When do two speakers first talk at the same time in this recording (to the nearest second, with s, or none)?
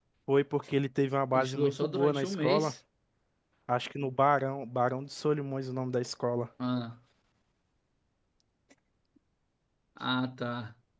1 s